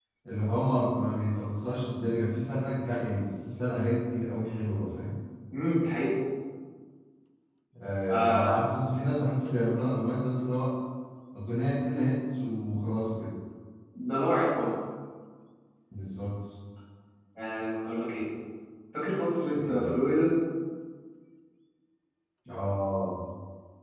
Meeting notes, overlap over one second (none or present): none